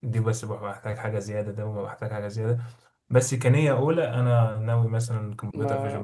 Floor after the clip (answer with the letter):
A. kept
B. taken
B